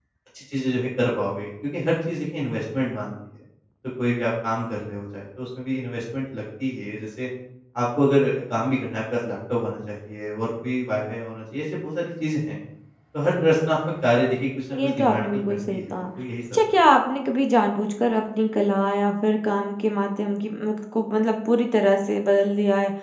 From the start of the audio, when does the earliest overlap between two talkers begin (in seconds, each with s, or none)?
14.8 s